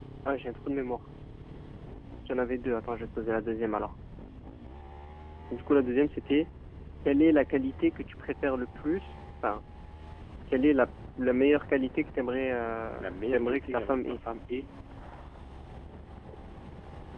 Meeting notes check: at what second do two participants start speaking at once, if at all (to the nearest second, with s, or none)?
13 s